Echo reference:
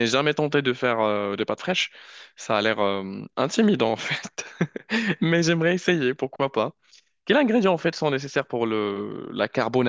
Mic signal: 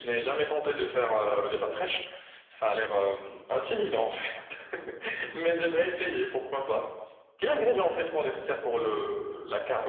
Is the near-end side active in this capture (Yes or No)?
No